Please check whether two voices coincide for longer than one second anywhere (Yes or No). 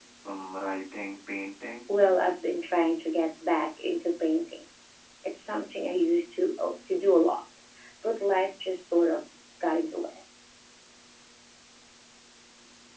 No